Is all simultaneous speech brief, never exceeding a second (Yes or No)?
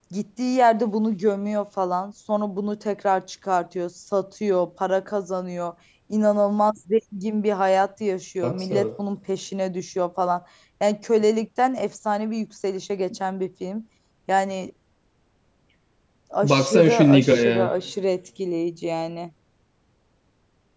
No